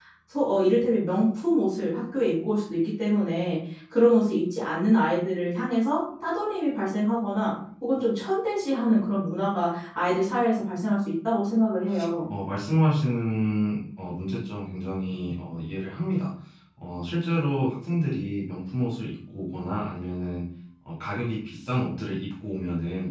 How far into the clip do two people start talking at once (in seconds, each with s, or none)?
none